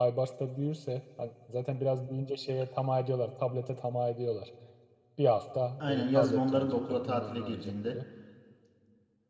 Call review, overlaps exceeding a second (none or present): present